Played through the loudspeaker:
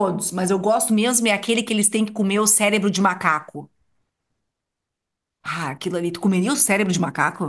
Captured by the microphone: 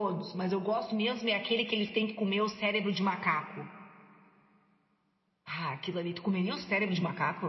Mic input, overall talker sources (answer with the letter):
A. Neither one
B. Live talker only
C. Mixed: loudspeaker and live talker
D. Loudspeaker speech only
D